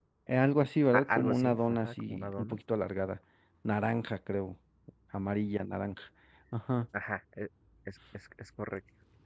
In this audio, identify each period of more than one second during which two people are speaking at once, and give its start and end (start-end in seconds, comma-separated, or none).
0.9-2.6